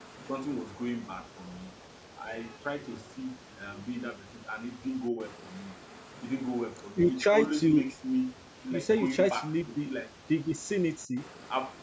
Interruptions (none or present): present